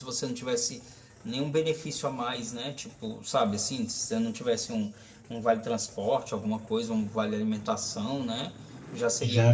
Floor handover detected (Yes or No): No